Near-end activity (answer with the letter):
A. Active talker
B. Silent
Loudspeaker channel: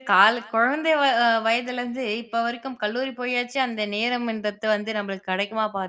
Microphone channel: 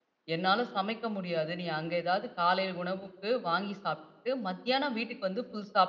A